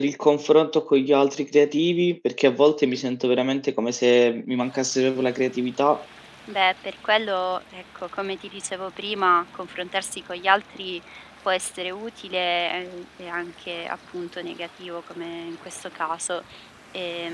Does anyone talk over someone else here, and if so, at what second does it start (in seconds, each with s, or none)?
none